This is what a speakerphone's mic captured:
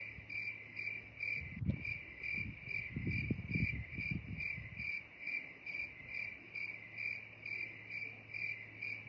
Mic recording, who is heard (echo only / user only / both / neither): neither